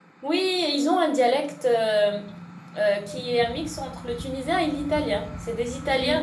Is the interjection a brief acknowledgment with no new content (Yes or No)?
Yes